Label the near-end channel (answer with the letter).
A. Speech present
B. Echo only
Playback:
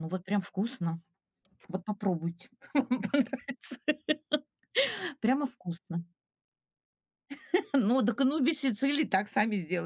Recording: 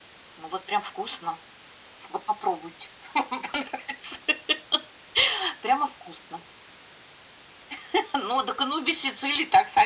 B